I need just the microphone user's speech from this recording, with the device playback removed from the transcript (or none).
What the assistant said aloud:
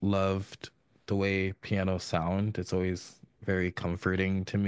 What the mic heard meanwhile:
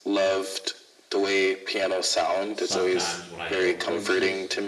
Sometimes when I go places,